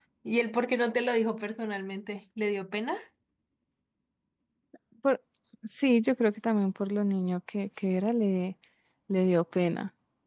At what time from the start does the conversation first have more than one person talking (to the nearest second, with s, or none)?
none